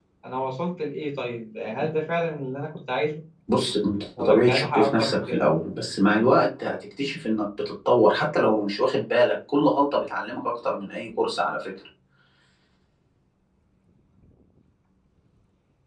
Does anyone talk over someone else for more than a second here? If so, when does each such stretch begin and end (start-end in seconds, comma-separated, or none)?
4.2-5.5